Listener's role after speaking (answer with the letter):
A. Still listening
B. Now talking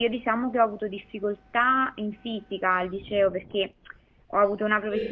A